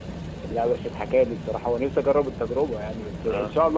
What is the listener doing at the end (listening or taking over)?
listening